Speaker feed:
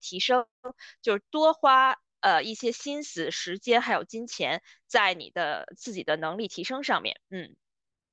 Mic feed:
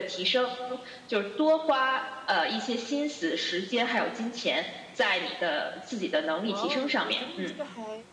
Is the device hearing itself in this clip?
Yes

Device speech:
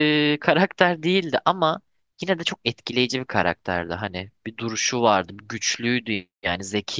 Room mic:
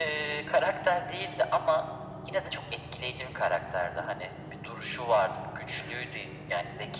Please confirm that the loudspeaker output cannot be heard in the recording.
No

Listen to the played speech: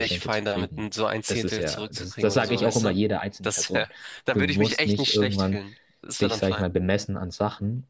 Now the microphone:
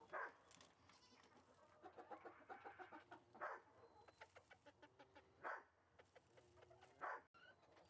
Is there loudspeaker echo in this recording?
No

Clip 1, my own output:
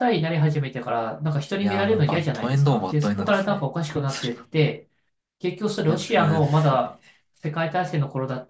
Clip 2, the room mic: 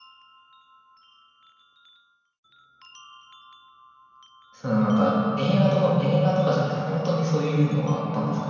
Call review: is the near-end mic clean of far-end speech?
Yes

